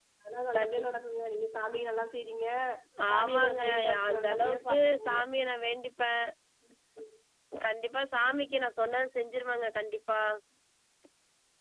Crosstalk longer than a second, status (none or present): present